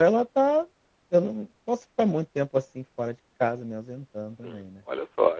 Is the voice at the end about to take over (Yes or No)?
Yes